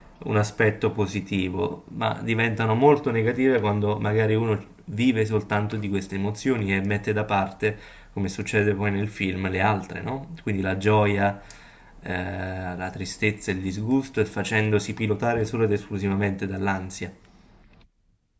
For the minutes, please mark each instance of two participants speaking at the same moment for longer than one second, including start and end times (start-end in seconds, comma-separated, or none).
none